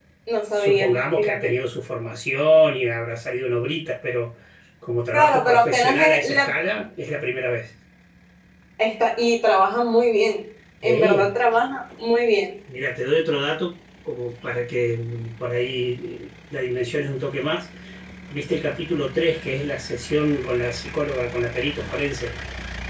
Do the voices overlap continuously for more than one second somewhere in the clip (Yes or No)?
Yes